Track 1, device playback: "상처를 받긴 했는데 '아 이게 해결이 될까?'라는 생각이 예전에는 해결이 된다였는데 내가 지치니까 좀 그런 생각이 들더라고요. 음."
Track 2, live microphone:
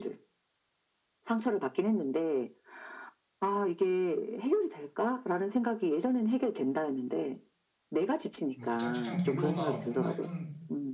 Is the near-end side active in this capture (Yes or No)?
Yes